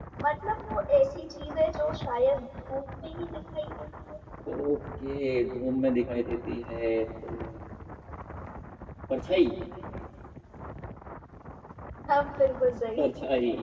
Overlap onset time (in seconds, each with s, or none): none